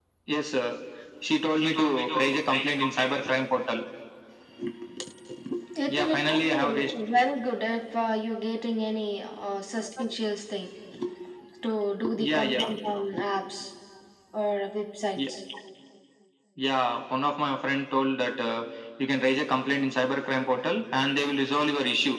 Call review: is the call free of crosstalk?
No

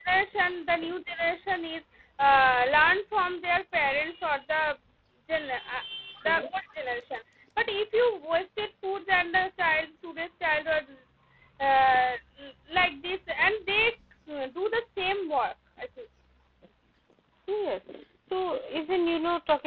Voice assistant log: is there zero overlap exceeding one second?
Yes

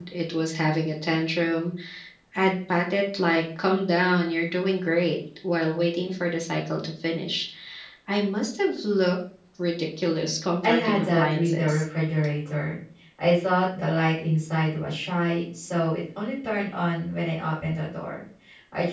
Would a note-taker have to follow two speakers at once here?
Yes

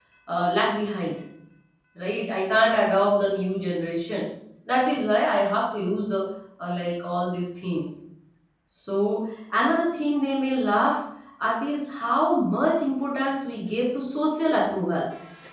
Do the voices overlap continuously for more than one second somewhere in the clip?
No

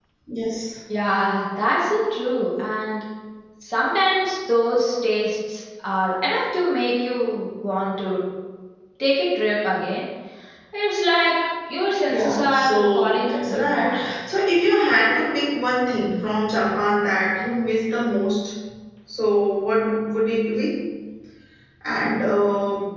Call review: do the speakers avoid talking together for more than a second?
No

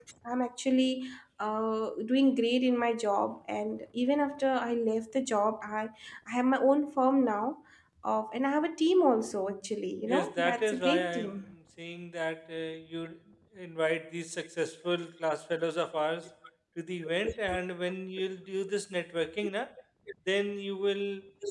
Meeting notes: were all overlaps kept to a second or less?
No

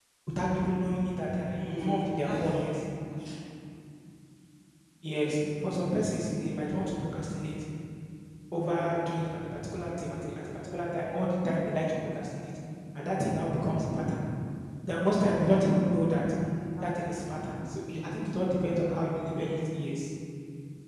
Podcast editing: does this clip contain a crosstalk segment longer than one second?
Yes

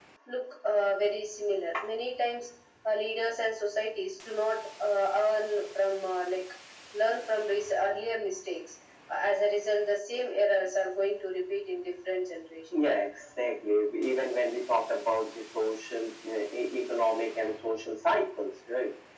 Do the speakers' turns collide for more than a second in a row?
No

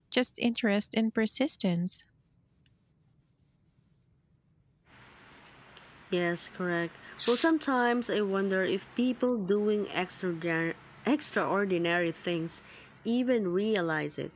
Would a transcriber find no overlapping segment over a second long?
Yes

